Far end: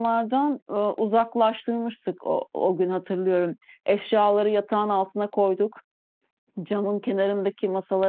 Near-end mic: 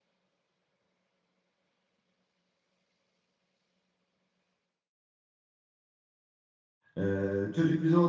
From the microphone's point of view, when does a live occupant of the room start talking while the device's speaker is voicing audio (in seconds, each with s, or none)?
7.0 s